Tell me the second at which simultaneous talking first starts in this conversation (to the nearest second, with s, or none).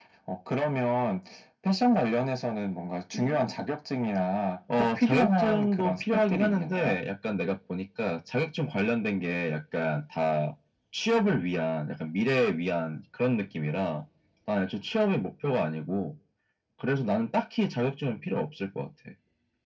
5 s